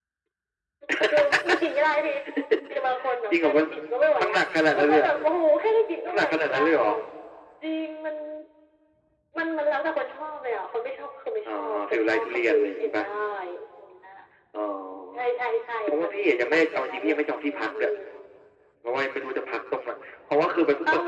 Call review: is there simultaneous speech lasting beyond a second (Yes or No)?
Yes